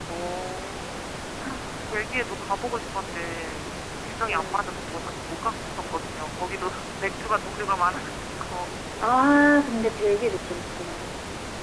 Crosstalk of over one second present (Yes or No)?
No